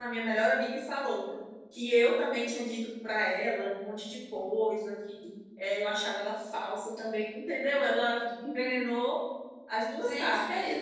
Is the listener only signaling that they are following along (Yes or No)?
No